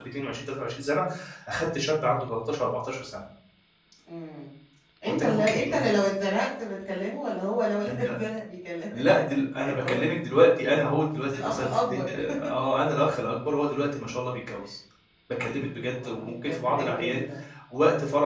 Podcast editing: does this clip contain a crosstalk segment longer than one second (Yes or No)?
Yes